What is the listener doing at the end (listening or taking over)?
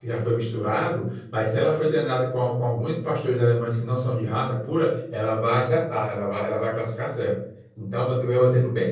listening